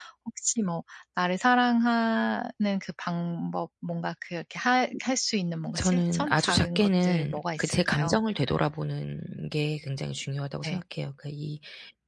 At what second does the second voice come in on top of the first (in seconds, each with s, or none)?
5.8 s